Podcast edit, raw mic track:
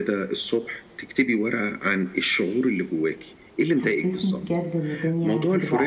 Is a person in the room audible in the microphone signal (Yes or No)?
Yes